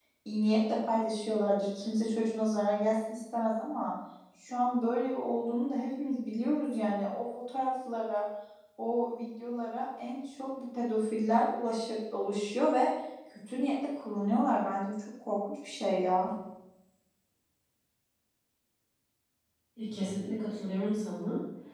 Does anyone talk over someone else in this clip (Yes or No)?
No